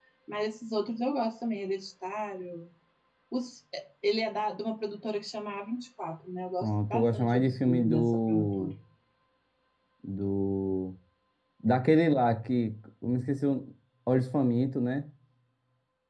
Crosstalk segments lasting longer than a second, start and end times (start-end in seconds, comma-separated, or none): 6.6-8.7